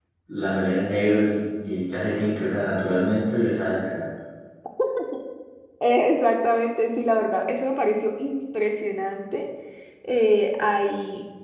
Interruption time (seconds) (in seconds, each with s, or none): none